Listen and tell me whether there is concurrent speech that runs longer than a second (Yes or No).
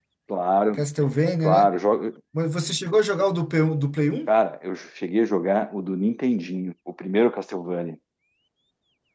No